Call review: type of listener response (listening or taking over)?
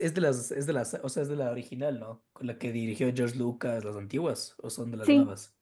taking over